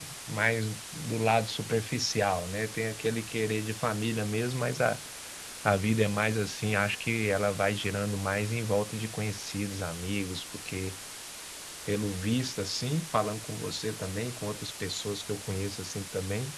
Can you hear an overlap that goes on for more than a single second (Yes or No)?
No